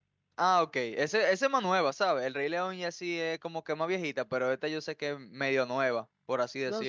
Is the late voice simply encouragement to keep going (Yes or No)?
No